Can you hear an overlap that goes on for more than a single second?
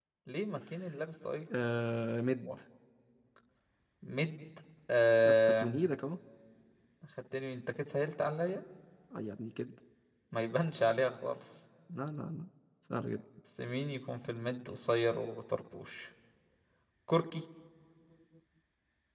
No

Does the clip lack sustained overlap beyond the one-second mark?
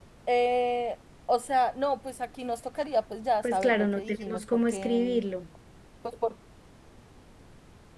No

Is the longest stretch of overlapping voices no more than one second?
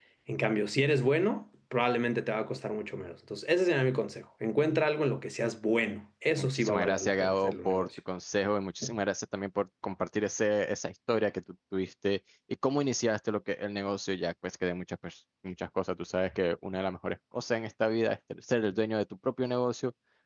No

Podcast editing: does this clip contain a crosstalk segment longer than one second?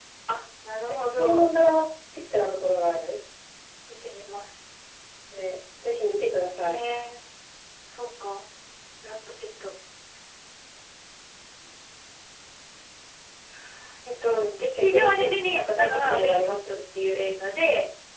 Yes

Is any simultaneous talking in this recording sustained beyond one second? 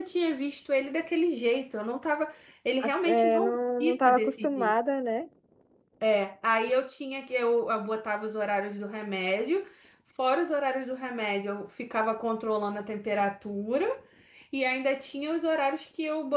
Yes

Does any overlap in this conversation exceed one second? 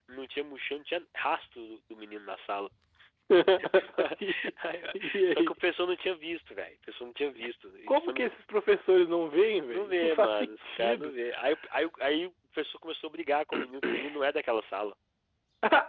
Yes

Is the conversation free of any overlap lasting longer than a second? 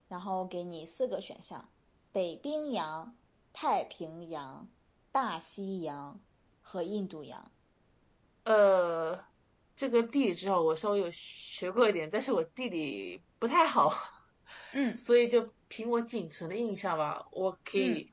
Yes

